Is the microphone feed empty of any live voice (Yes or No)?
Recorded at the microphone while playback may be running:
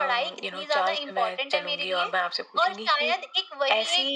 Yes